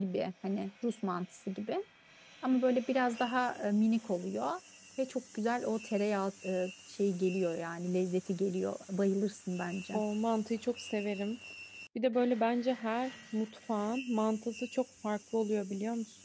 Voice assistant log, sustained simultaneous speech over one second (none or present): none